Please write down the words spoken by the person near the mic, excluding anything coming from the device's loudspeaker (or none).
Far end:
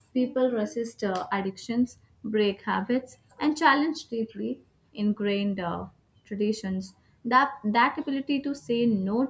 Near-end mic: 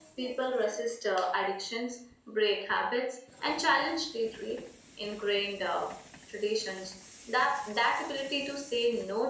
none